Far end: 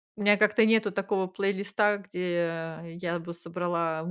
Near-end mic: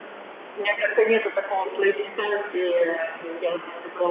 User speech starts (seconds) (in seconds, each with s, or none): none